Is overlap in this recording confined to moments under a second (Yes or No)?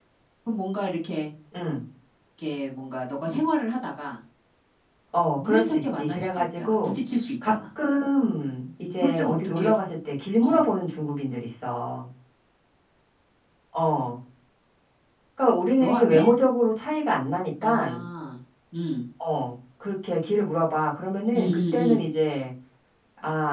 No